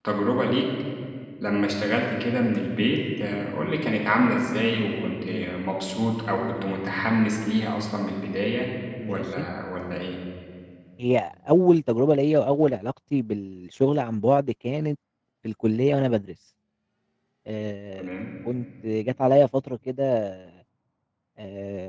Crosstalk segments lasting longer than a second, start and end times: none

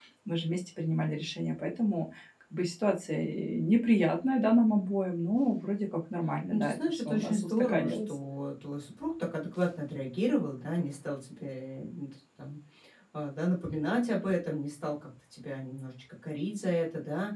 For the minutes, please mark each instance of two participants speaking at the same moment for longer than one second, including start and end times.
6.5-8.1

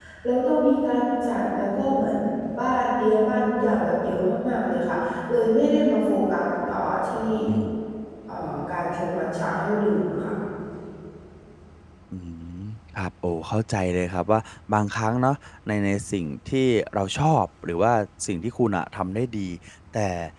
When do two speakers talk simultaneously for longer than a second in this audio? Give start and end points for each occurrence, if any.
none

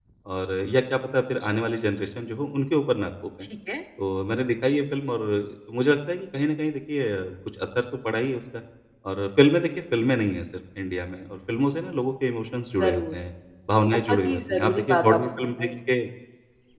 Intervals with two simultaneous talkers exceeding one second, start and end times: 14.1-15.7

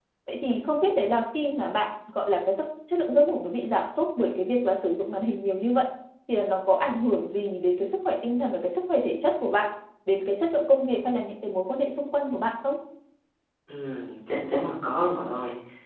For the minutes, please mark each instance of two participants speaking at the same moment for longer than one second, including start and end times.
none

